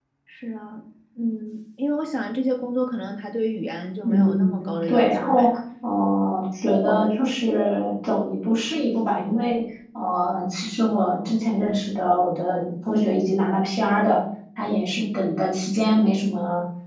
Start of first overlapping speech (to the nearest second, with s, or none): 4 s